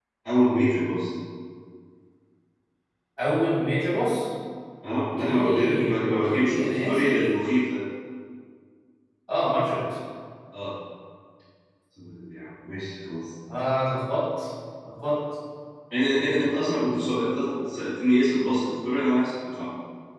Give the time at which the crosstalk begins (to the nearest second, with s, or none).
5 s